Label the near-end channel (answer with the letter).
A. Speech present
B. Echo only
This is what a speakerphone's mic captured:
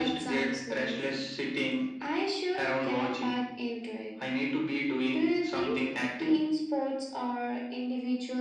B